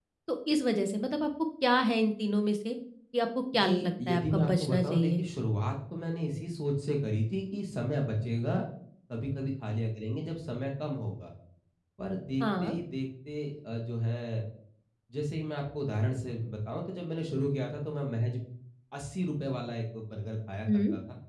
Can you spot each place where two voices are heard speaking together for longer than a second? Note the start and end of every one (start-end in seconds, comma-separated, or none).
3.5-5.2